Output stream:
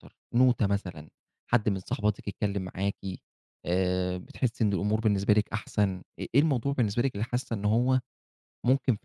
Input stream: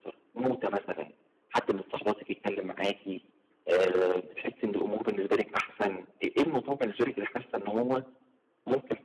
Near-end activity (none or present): none